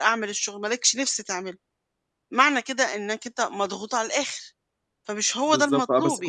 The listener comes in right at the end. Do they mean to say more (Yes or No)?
Yes